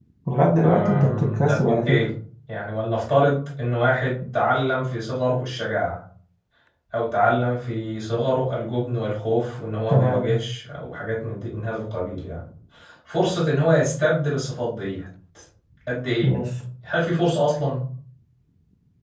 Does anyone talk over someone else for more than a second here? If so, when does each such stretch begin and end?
0.6-2.1

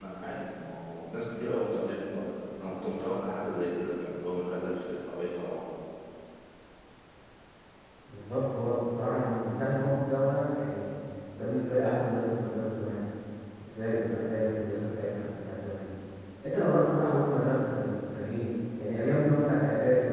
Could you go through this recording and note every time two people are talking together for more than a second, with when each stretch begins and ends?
none

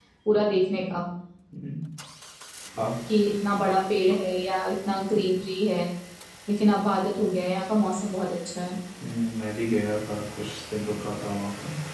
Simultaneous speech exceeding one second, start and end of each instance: none

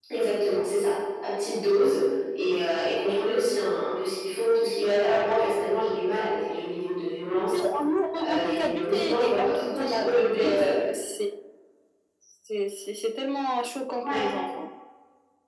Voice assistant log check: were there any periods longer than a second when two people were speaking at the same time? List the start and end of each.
8.2-10.6

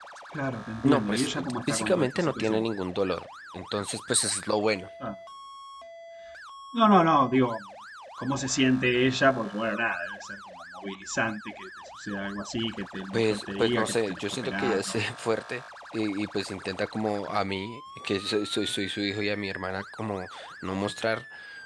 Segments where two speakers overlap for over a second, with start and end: 0.8-2.6, 13.1-15.0

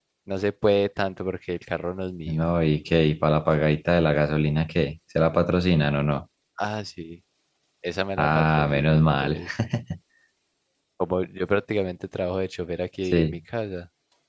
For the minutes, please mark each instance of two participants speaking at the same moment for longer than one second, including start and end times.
8.2-9.4

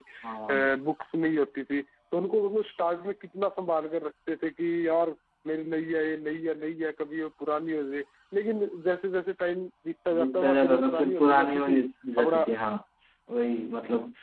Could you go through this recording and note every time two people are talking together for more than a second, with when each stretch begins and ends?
10.2-11.8

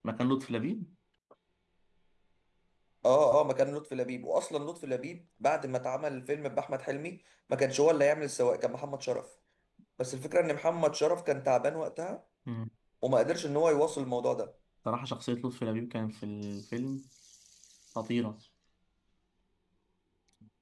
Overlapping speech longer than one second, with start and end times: none

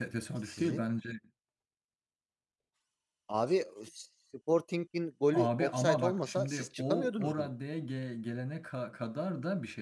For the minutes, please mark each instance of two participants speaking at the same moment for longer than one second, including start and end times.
5.3-7.5

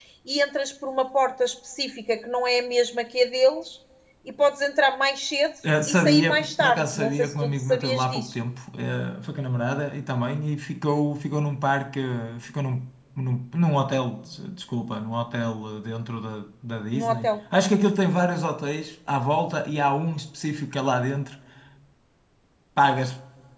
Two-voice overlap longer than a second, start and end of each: 5.9-8.3

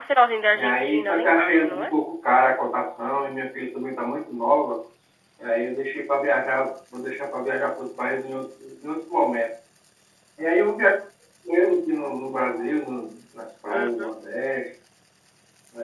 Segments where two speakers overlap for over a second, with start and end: 0.5-1.9

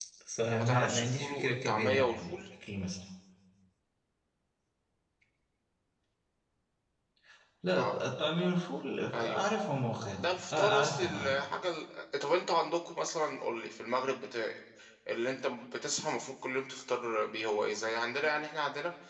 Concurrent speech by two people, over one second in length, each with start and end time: 0.5-2.3, 10.2-11.4

